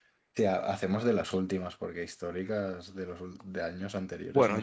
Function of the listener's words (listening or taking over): taking over